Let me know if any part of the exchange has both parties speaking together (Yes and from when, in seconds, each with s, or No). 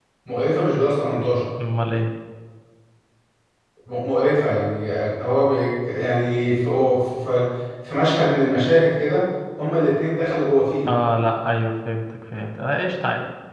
No